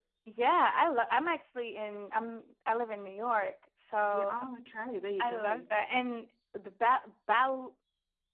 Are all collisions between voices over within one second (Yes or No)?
Yes